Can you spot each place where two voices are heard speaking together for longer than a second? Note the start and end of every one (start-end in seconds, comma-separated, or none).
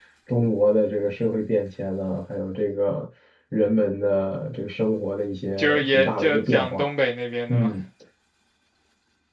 5.6-6.8